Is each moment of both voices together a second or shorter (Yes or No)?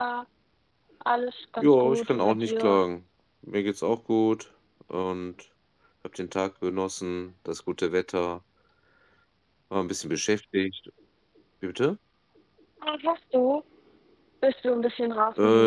No